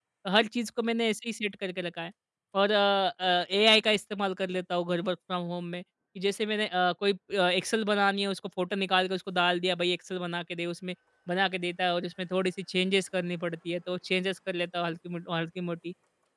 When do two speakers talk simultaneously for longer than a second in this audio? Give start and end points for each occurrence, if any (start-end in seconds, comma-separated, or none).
none